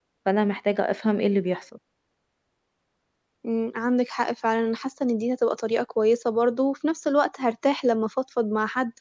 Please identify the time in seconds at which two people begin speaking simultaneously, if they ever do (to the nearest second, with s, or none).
none